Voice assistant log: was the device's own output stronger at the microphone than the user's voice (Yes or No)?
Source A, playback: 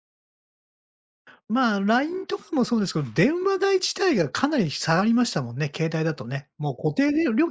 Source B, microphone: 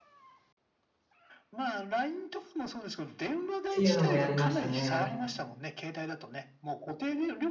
No